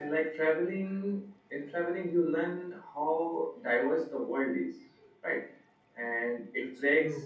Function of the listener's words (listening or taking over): listening